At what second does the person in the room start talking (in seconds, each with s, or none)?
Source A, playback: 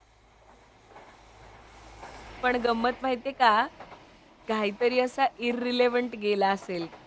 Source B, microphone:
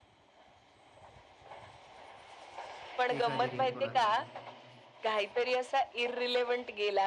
3.2 s